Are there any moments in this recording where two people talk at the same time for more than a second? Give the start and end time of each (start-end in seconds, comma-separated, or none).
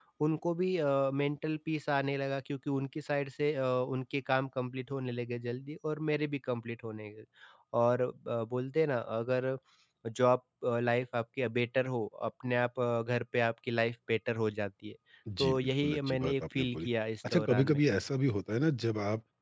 15.4-16.9